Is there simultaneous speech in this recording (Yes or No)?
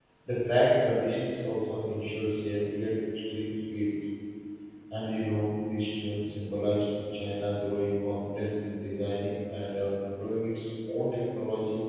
No